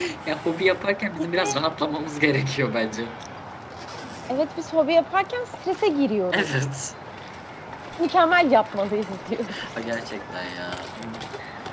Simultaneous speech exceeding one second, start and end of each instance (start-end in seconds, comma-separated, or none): none